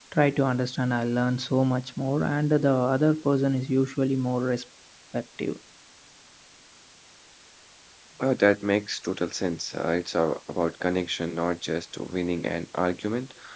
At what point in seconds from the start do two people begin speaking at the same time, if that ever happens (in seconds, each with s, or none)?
none